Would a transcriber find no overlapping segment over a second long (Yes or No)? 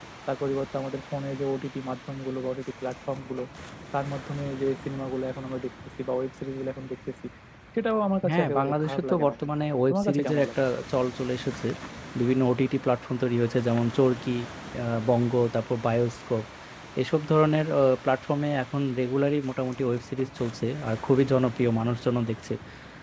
No